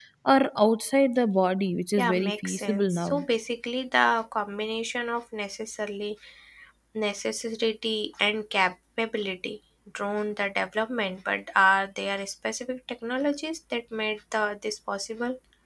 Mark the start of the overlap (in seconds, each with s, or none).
2.0 s